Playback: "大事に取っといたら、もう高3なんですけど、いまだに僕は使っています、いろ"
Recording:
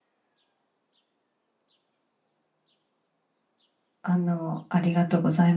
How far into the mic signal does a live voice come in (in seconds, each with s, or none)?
4.0 s